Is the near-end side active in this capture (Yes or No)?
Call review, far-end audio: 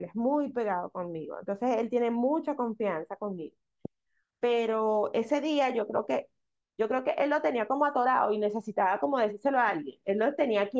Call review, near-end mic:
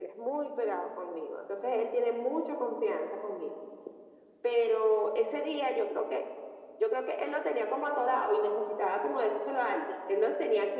No